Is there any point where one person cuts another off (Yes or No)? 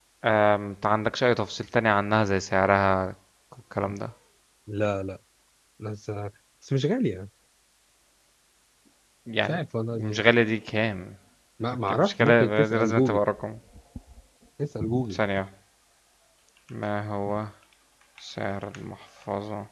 Yes